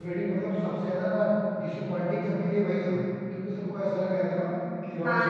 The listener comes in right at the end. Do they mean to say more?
No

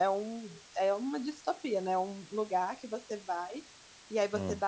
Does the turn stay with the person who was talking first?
Yes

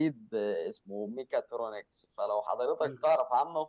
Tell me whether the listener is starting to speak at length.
No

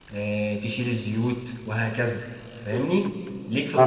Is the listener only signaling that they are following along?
No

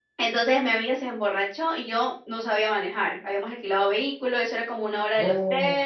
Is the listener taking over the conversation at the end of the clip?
No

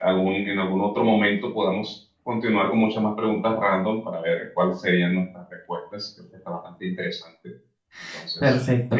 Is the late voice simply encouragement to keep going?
No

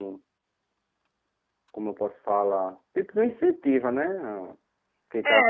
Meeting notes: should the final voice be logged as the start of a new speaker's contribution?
Yes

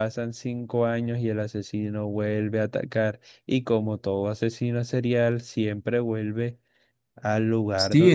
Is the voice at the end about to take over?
Yes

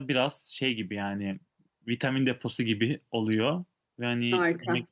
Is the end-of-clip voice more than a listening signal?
No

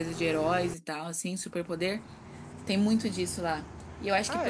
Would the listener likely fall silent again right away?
Yes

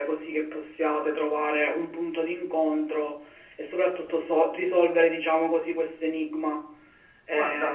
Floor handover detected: Yes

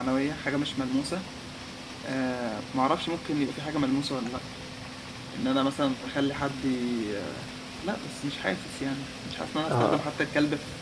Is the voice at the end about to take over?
No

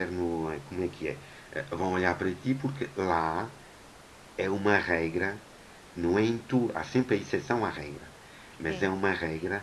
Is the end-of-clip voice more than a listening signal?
No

